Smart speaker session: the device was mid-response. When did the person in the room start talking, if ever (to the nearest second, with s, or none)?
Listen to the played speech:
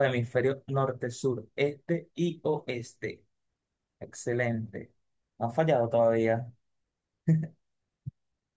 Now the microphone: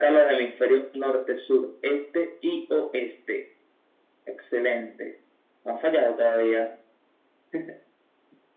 none